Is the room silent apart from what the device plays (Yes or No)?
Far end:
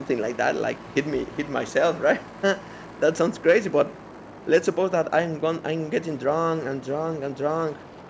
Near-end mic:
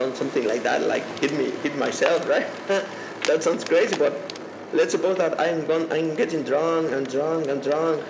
Yes